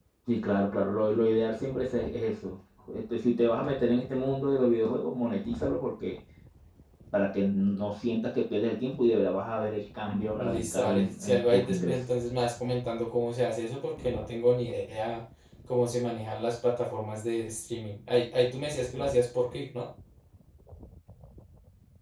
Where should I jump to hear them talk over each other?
10 s

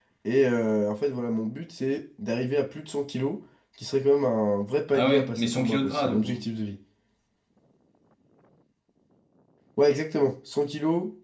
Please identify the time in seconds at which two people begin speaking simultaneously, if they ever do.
5 s

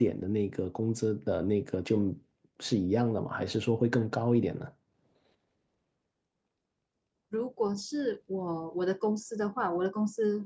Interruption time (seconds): none

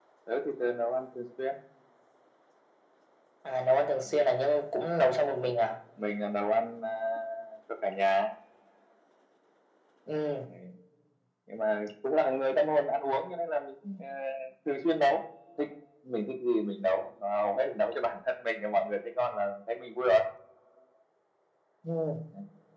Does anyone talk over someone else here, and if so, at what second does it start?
none

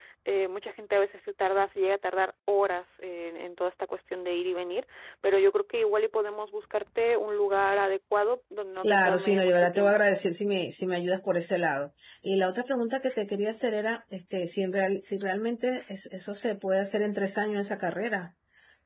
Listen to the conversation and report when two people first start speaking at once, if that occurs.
9 s

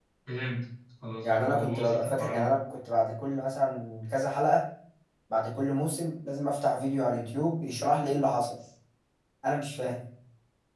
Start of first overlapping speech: 1 s

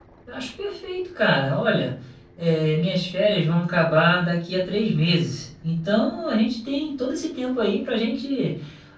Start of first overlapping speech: none

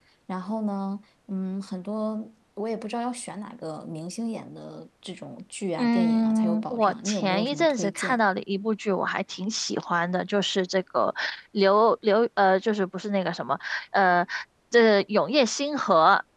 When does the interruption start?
6 s

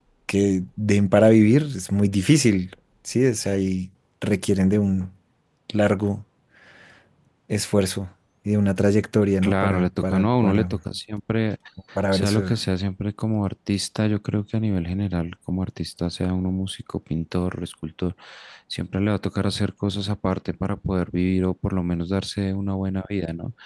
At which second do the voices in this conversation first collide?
9 s

